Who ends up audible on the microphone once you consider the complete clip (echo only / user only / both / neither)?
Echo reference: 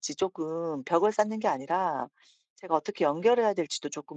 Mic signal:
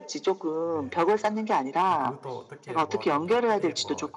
both